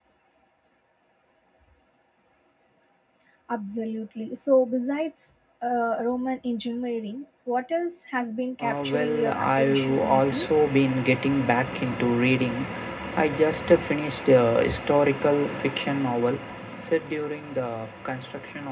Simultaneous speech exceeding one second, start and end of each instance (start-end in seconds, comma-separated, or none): 8.6-10.5